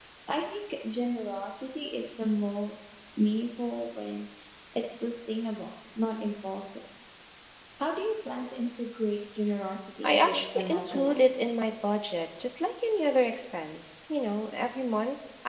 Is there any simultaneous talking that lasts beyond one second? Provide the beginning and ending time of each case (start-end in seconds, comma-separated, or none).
10.0-11.2